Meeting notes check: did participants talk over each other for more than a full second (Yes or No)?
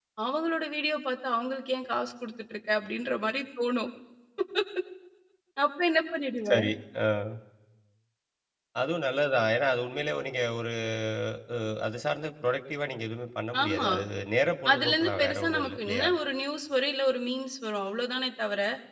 Yes